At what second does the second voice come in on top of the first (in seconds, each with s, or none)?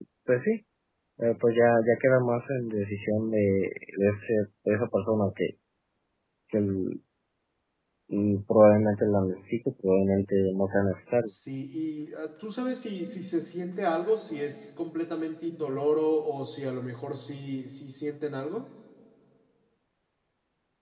none